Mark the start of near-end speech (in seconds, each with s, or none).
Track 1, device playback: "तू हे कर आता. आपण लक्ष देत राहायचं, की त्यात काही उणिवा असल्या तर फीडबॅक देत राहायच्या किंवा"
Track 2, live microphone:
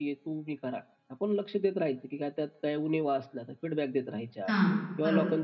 4.5 s